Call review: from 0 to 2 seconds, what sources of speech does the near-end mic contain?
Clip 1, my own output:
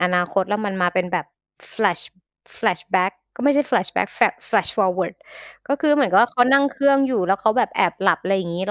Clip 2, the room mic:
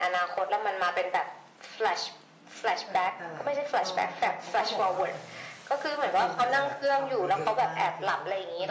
echo only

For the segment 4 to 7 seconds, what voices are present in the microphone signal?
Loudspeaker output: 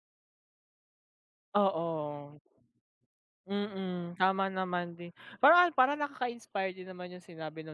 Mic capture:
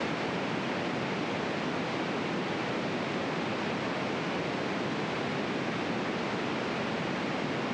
neither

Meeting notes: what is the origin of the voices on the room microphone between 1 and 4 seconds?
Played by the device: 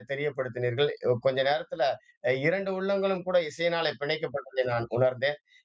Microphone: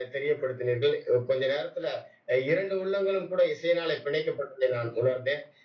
echo only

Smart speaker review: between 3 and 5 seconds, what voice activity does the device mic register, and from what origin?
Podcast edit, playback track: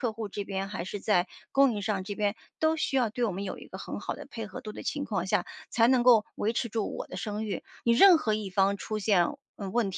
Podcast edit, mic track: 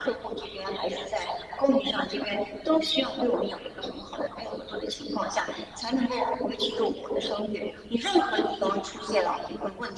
echo only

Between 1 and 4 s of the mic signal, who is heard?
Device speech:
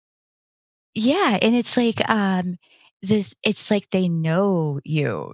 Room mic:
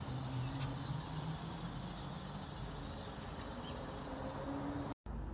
neither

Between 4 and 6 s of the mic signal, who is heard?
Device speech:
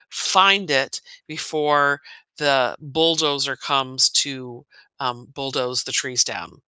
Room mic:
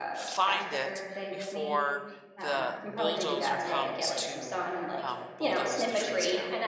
both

